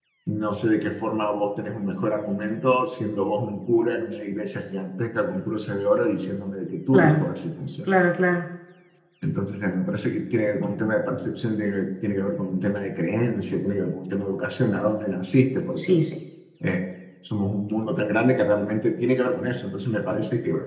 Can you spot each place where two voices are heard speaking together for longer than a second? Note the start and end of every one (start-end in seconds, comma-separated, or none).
none